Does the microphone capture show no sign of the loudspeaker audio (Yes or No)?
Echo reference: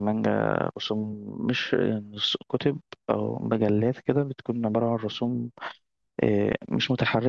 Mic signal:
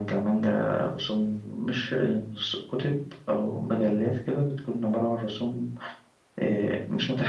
No